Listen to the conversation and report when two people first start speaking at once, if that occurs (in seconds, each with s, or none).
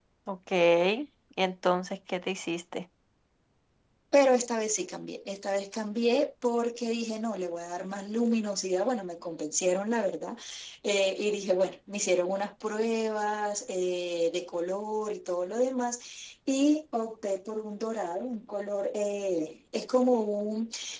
none